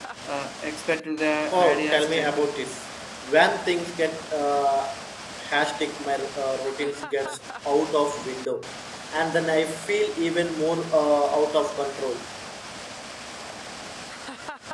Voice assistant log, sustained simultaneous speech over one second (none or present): present